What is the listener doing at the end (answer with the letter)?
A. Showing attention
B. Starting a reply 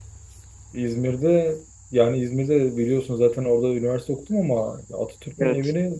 A